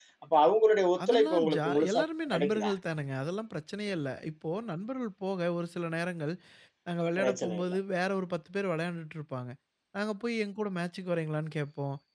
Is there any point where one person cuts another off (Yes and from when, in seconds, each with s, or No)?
Yes, from 1.0 s